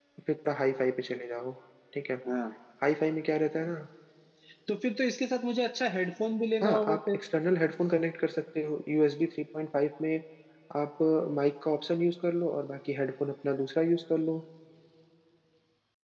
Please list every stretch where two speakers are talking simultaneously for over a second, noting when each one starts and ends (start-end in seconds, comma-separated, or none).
none